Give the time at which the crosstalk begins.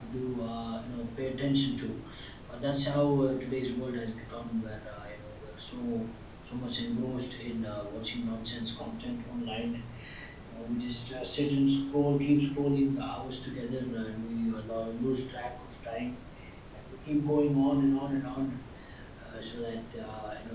none

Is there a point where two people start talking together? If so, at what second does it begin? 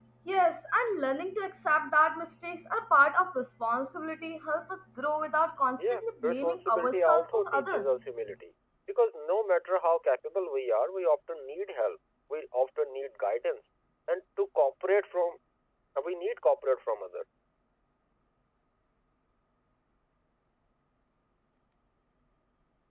5.8 s

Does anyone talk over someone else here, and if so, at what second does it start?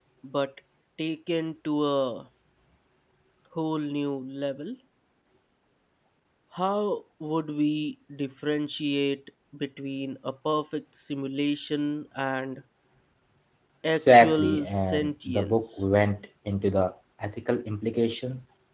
14.0 s

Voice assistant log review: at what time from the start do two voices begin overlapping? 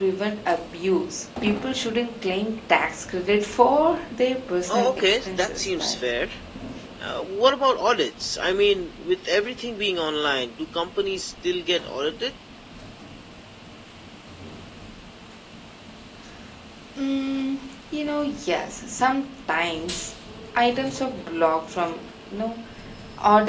4.7 s

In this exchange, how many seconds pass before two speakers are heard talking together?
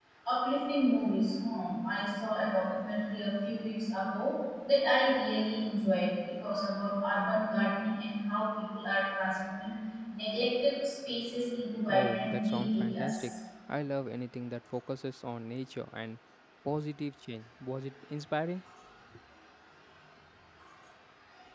11.9 s

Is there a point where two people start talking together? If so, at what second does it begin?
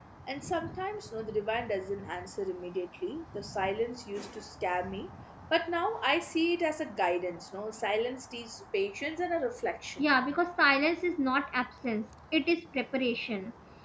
none

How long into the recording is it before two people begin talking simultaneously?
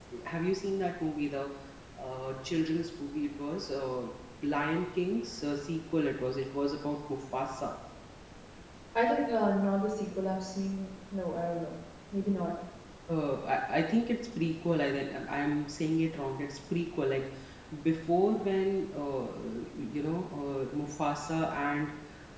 none

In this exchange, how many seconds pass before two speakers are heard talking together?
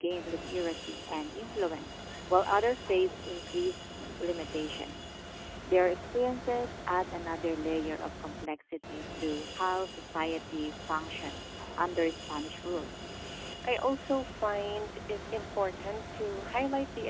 none

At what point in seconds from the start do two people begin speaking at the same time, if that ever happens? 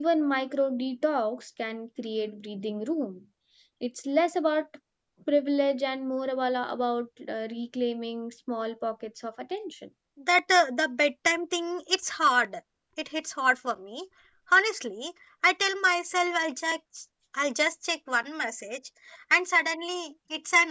none

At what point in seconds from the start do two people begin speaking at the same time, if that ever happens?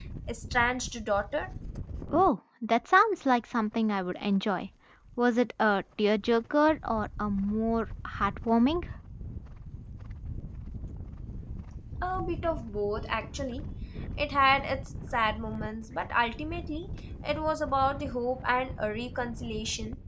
none

